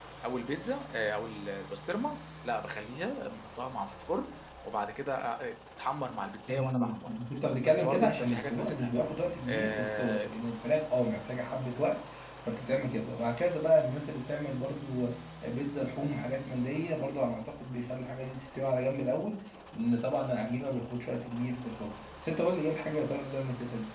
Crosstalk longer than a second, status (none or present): present